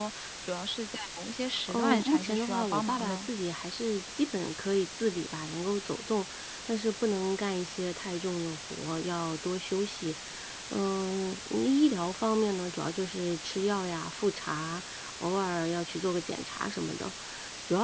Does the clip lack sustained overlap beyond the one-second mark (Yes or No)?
No